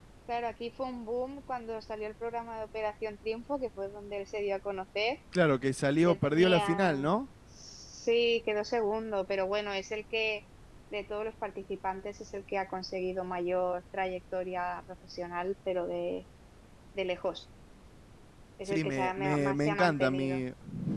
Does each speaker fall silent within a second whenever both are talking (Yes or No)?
No